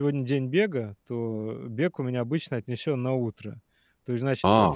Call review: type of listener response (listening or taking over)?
taking over